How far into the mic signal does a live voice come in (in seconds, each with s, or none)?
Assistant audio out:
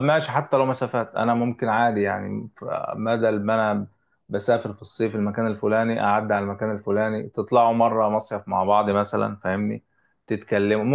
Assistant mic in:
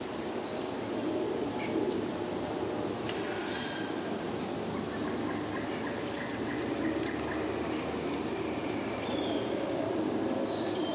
none